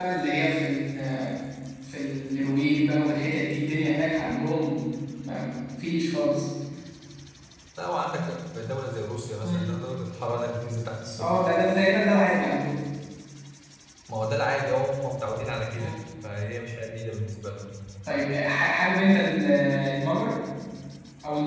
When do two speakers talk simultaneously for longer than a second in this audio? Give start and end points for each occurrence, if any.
none

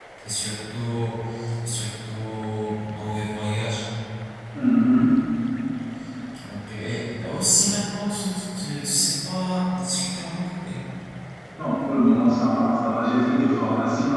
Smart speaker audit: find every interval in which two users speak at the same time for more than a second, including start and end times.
none

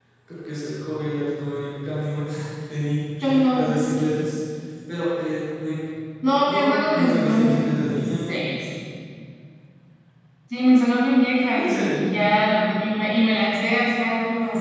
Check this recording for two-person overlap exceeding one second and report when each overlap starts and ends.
6.5-8.1

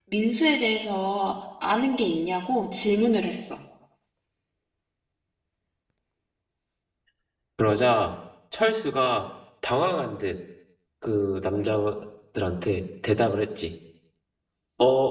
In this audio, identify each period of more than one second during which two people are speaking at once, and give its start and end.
none

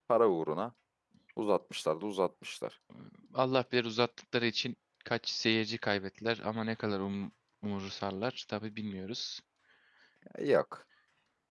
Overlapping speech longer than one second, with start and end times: none

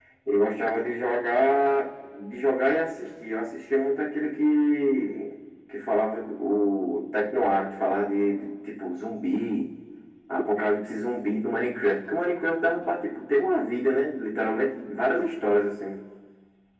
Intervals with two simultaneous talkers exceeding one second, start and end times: none

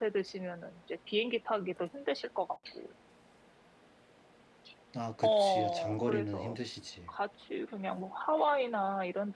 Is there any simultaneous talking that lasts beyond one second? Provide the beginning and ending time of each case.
5.2-6.6

